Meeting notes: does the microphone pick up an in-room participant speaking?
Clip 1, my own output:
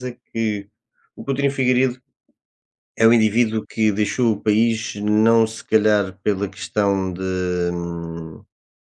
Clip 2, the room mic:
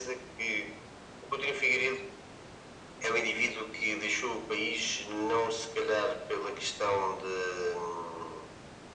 No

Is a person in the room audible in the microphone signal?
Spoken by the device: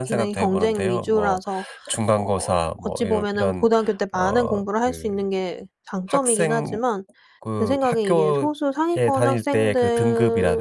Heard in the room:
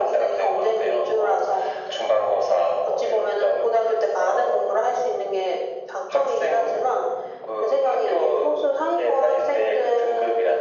No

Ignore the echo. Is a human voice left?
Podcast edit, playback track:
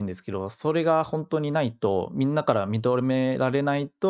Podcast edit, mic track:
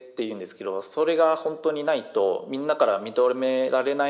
No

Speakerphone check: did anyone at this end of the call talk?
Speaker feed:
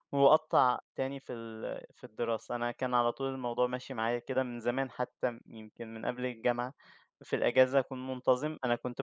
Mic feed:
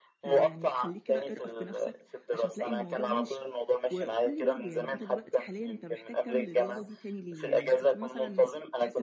Yes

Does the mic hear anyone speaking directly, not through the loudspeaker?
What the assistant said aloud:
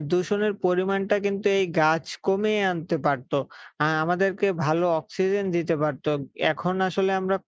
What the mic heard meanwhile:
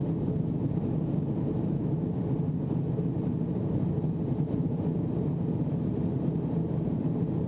No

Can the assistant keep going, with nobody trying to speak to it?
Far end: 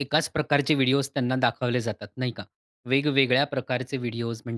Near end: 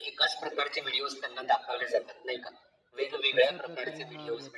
No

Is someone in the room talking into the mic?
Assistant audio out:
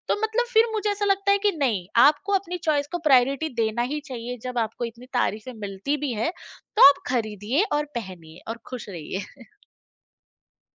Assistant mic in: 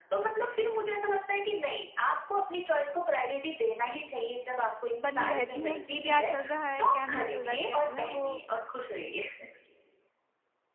Yes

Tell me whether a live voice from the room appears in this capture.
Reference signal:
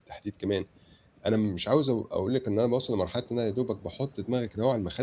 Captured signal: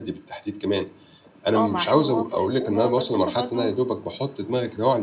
Yes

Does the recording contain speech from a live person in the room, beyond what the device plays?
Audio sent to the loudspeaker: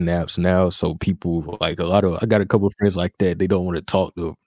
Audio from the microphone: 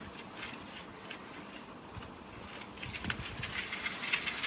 No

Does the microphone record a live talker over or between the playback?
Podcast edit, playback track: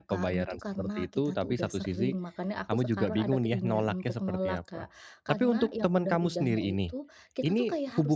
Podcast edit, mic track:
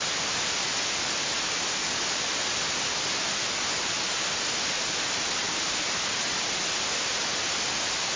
No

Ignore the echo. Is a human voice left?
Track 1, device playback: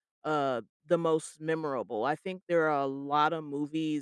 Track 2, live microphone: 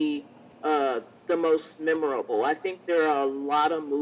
No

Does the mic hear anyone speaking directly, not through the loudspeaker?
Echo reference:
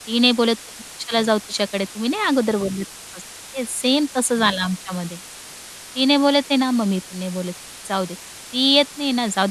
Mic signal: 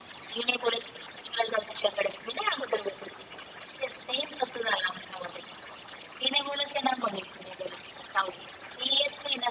No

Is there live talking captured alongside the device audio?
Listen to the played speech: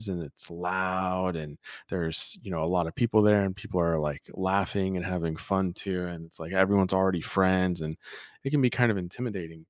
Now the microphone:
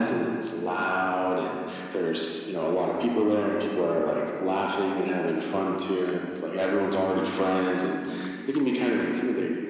No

